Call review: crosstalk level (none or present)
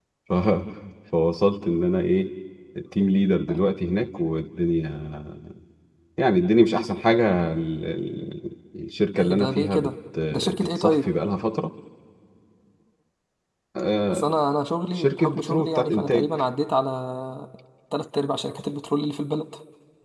present